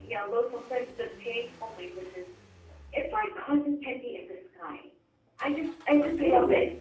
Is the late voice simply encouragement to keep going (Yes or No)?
Yes